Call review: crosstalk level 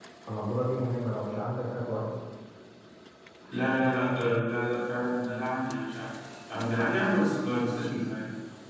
none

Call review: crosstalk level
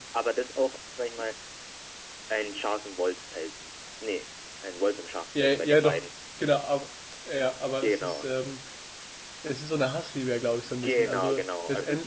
present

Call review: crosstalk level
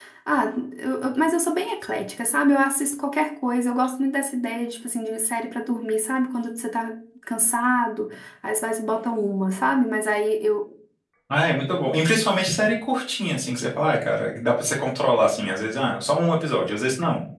none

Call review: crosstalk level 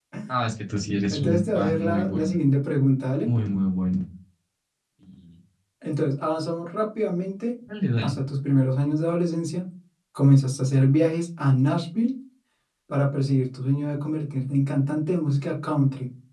present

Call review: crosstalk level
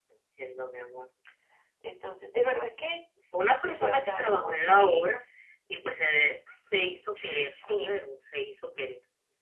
present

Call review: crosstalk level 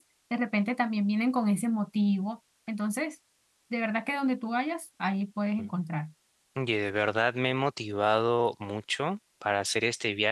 none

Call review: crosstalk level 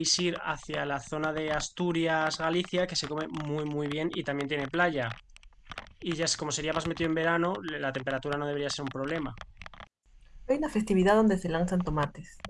none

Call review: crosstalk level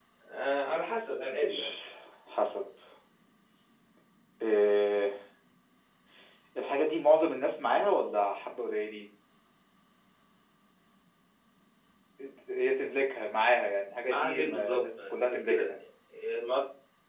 present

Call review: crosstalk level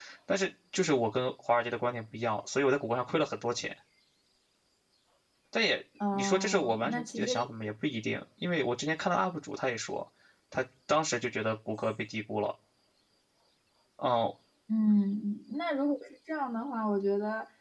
present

